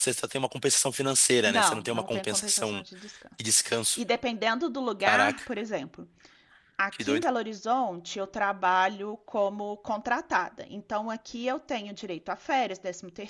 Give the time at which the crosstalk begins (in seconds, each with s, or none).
1.5 s